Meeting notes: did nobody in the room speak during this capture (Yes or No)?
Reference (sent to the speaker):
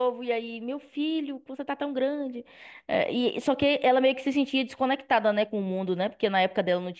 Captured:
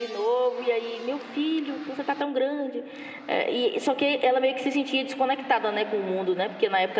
Yes